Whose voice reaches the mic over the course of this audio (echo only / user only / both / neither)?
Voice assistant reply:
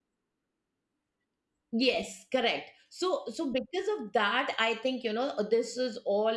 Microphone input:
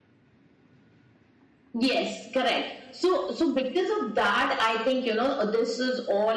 echo only